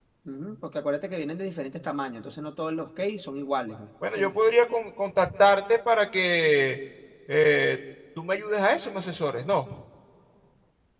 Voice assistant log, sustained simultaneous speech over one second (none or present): none